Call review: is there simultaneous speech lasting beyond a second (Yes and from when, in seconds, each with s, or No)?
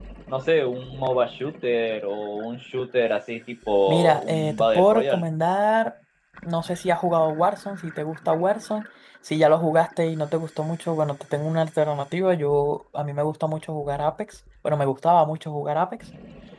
Yes, from 3.9 s